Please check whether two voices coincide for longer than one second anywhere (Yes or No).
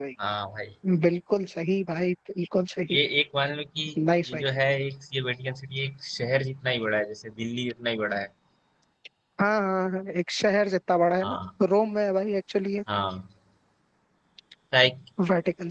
No